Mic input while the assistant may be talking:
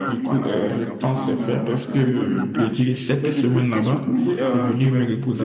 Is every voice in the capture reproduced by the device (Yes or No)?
No